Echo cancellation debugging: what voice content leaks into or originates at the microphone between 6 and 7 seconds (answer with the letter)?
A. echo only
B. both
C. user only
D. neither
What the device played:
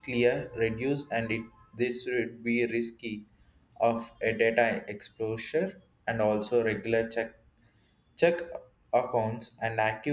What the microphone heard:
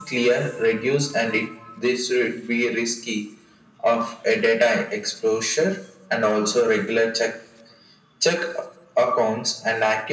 A